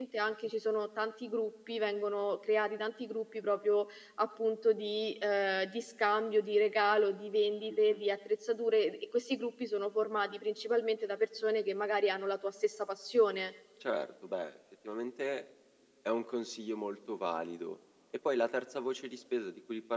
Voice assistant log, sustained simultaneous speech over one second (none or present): none